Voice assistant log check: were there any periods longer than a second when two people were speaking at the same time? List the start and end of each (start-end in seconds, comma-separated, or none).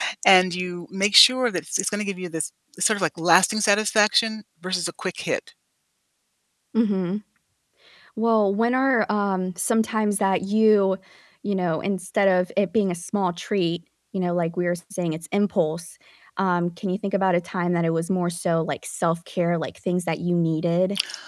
none